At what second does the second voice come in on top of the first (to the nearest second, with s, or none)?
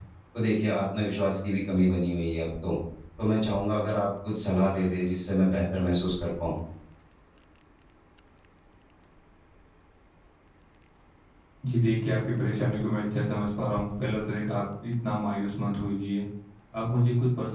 none